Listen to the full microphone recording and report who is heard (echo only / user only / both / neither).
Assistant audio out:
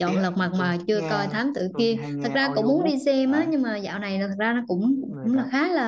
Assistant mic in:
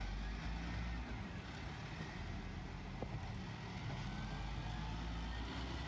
neither